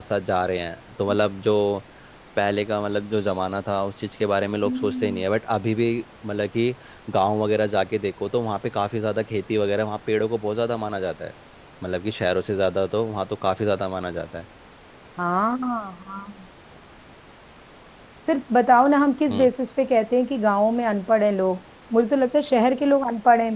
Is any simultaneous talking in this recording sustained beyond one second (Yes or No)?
No